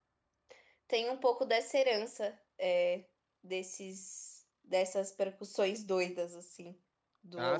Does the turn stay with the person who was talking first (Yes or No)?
No